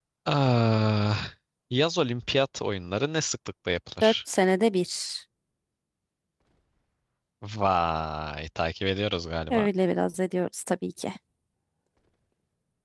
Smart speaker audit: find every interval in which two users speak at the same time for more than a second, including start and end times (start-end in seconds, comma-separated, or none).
none